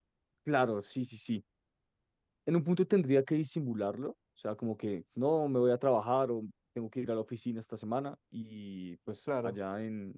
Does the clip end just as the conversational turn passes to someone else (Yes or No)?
No